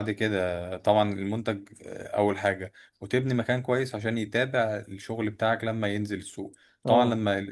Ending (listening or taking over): listening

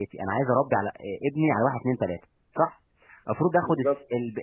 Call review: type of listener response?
listening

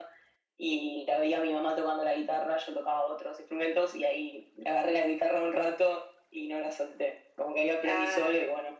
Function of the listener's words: listening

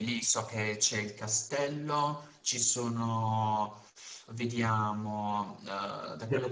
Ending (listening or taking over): listening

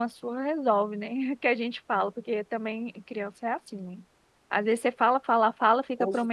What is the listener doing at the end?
listening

